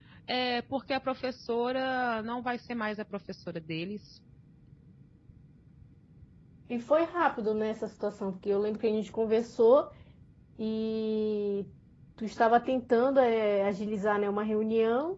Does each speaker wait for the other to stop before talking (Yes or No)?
Yes